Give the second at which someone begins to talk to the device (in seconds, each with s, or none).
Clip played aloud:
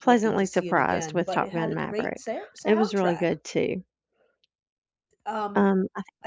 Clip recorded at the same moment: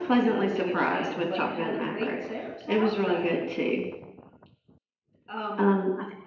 none